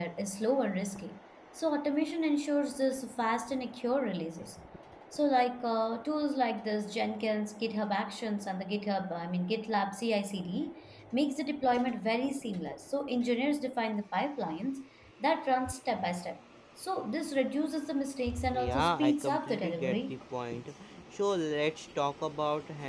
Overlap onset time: 18.5 s

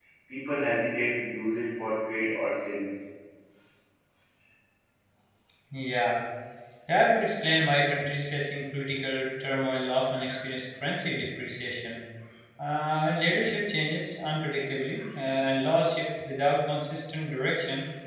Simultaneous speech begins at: none

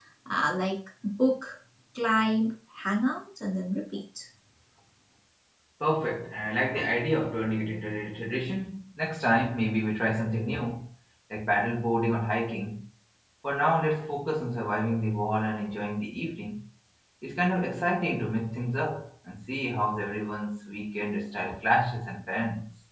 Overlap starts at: none

